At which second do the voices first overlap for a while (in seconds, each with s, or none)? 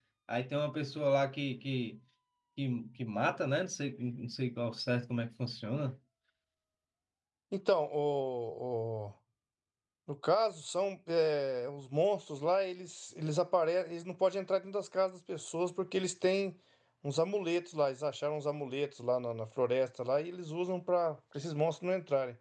none